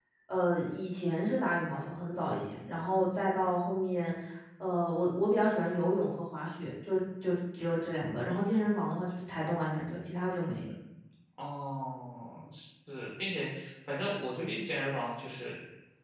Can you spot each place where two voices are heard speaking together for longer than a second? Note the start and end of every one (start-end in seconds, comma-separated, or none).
none